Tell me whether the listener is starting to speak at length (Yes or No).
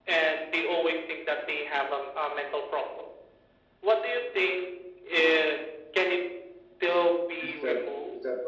Yes